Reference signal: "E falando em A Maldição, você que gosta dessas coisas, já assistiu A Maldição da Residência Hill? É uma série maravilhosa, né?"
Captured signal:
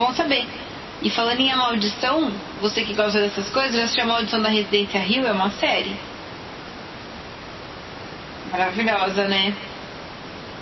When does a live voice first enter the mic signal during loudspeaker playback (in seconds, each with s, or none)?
none